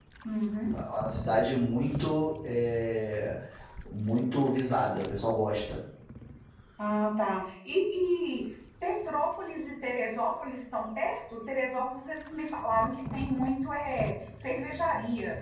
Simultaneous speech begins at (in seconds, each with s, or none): none